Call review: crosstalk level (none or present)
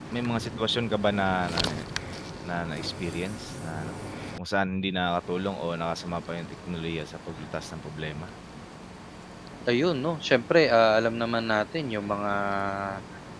none